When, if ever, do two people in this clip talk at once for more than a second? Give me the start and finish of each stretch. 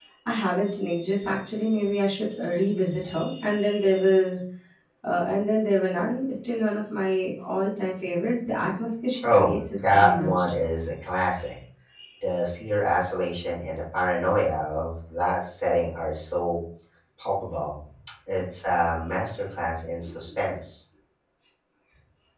9.2-10.5

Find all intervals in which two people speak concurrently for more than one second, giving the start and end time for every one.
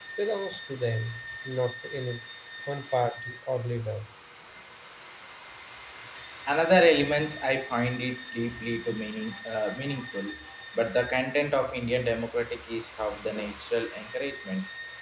none

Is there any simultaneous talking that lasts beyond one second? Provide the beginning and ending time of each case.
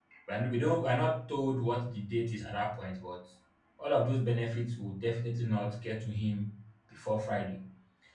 none

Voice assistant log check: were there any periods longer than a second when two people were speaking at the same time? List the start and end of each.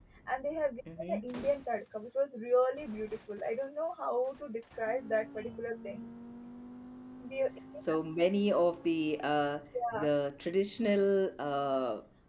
none

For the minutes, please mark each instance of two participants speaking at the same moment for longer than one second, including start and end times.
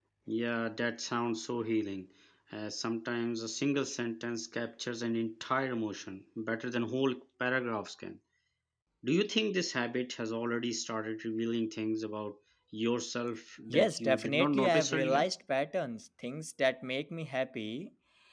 13.7-15.3

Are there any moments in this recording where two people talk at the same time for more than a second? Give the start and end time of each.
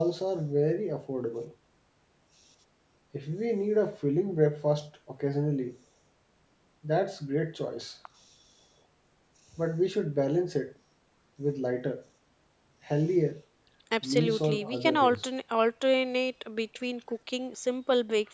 14.0-15.3

